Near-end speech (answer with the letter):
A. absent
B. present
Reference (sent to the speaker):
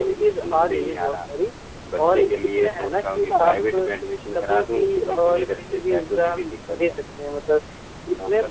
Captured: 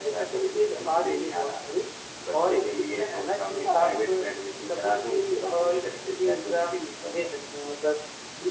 A